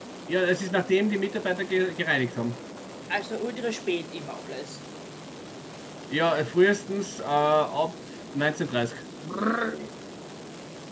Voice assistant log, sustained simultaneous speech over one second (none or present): none